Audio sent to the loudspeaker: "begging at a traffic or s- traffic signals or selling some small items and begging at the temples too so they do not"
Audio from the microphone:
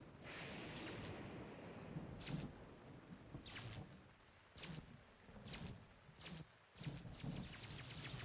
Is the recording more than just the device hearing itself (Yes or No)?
No